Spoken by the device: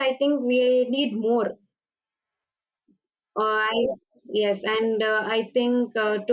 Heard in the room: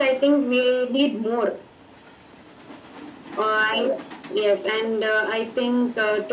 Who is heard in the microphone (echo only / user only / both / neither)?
echo only